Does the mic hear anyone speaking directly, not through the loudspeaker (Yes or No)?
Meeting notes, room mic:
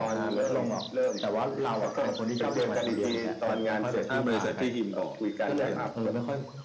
Yes